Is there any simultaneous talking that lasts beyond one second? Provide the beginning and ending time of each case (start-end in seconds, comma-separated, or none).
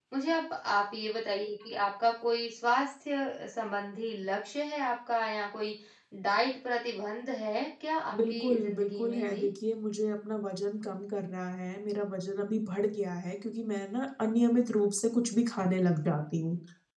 8.1-9.5